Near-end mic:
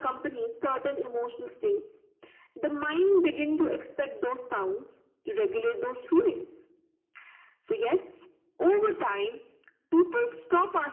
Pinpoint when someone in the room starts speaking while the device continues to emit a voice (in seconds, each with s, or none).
none